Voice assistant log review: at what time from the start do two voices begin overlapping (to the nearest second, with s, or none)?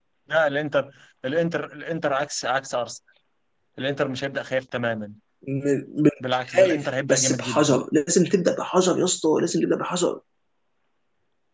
7 s